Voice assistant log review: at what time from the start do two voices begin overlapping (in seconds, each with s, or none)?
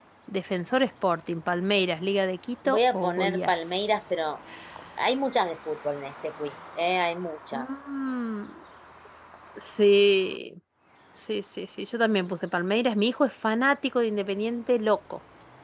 2.6 s